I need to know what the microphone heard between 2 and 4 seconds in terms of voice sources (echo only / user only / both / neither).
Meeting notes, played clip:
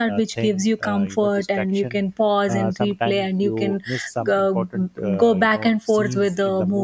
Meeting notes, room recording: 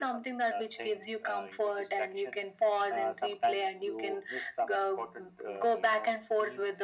echo only